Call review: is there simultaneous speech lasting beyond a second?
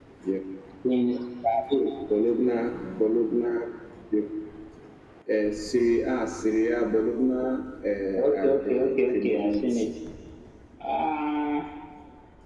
Yes, from 8.4 s

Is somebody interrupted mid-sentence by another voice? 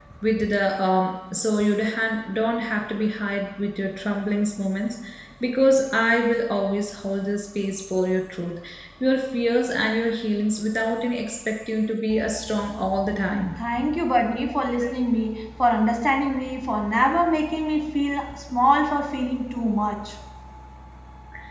No

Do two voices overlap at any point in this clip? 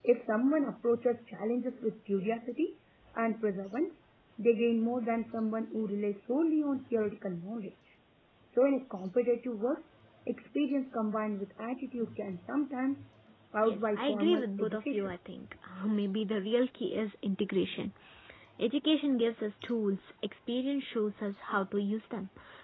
Yes, from 13.6 s

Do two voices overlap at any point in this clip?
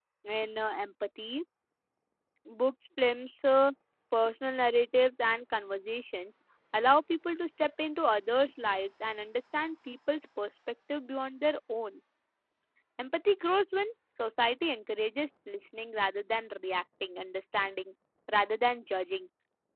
No

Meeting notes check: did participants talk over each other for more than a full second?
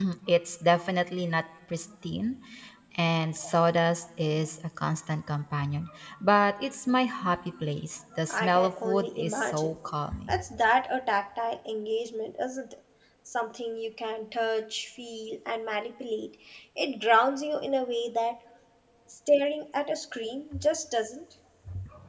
Yes, from 8.3 s

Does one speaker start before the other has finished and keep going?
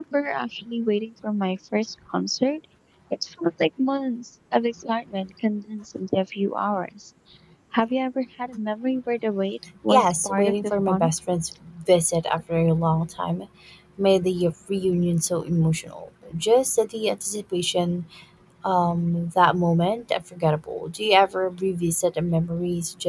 Yes, from 9.9 s

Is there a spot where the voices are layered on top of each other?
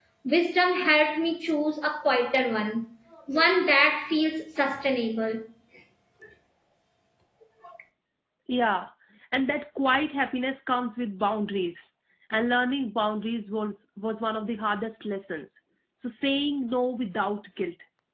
No

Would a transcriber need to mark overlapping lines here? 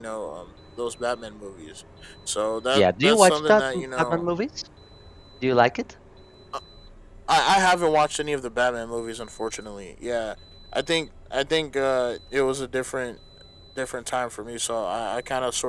Yes, from 2.7 s

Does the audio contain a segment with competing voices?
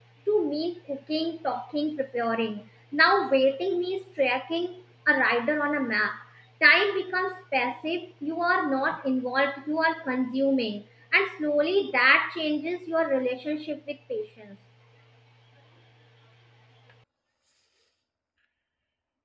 No

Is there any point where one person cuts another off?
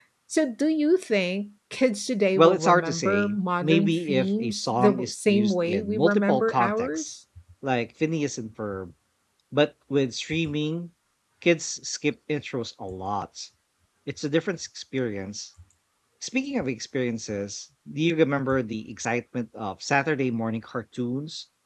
Yes, from 2.4 s

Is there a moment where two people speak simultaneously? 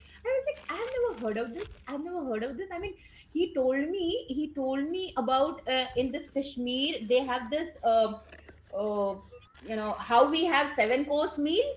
No

